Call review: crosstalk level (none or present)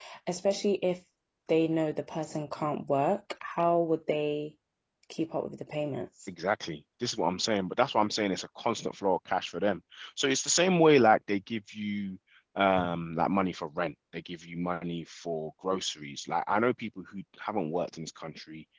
none